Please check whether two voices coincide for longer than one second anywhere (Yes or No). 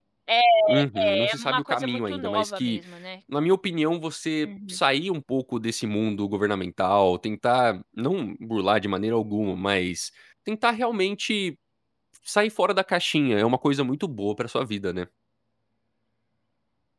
Yes